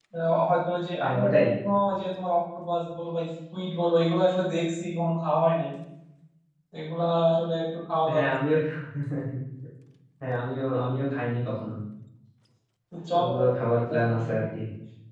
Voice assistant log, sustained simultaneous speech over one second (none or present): none